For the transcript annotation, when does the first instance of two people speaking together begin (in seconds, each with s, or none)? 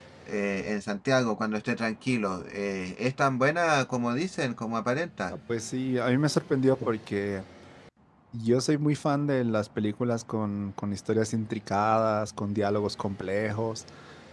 none